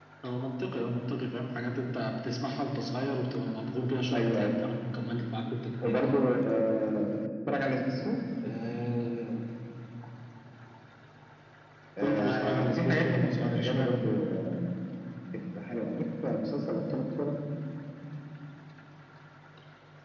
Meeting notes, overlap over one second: present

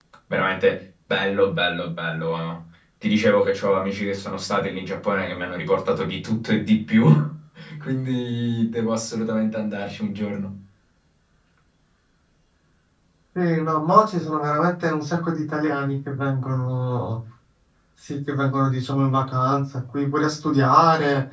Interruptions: none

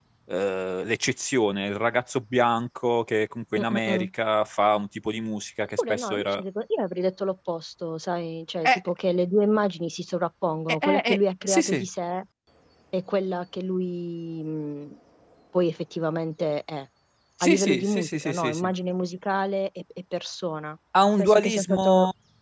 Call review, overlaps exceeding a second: present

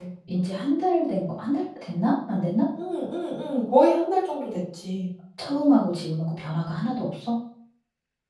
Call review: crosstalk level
none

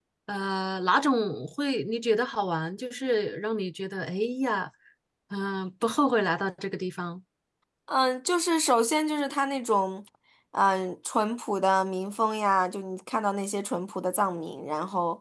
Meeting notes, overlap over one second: none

